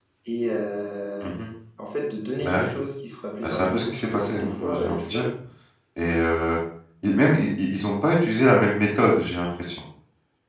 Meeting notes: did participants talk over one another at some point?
Yes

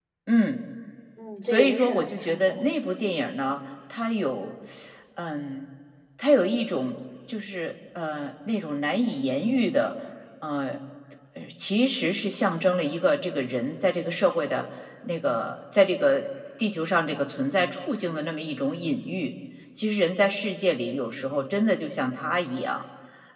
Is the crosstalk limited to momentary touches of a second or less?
No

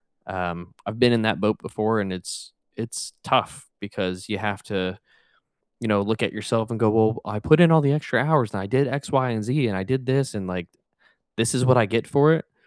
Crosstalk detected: No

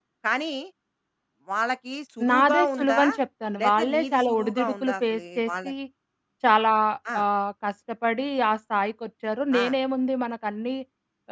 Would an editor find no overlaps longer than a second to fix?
No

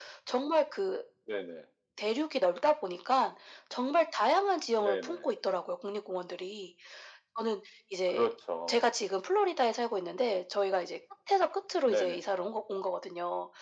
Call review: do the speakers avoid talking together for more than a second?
Yes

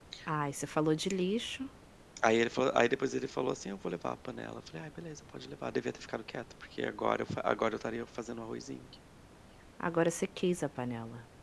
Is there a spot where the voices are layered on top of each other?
No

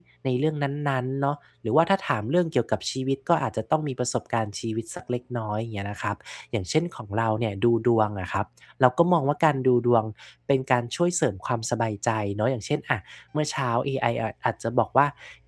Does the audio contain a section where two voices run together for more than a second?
No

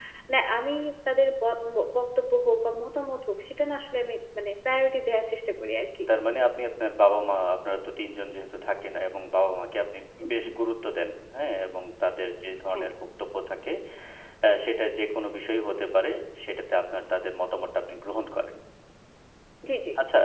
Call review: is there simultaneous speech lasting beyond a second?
No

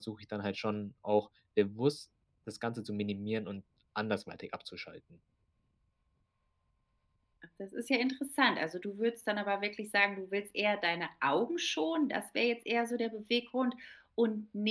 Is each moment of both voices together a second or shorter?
Yes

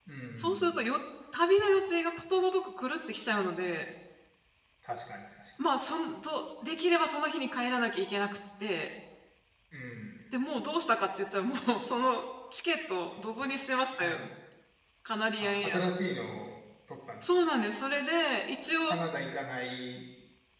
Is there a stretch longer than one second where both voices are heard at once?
No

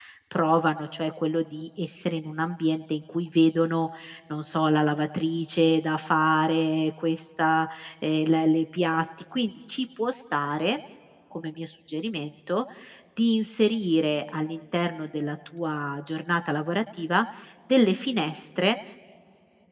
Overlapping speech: No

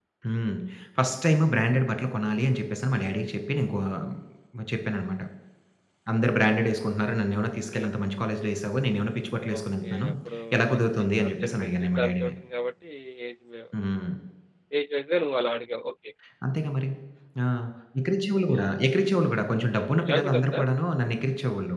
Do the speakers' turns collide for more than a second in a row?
Yes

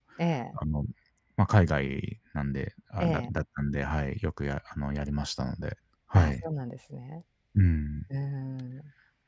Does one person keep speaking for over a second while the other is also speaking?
No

